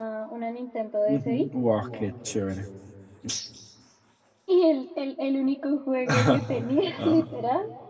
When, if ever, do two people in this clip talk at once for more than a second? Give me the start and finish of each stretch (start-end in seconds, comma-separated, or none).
none